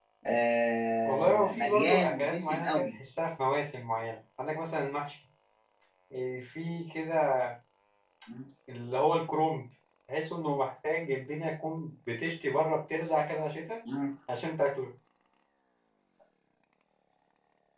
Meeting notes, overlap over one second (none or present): present